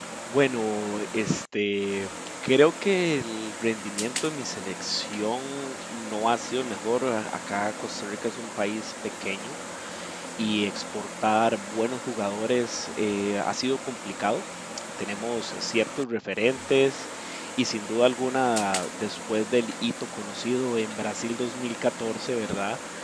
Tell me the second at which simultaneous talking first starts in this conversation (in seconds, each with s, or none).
none